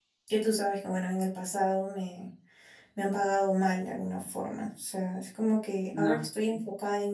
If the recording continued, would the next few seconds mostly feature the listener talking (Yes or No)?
No